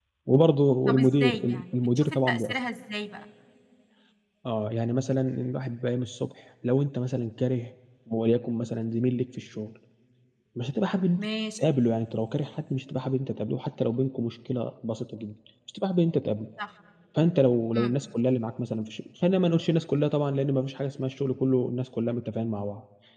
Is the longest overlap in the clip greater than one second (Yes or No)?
Yes